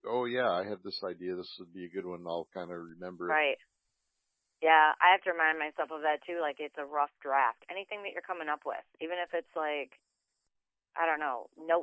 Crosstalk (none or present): none